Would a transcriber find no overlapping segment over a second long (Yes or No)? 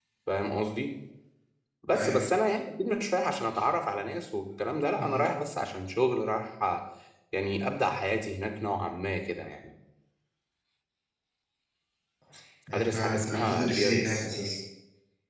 No